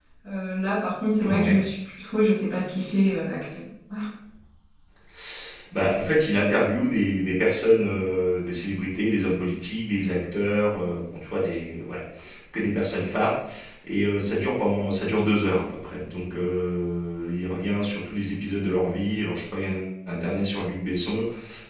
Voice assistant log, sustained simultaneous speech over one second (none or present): none